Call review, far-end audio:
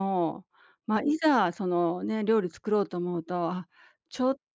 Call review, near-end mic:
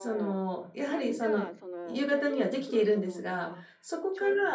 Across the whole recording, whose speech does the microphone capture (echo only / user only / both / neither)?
both